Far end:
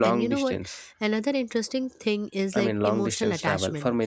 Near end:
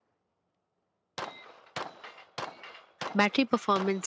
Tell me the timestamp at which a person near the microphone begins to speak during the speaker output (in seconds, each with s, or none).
3.1 s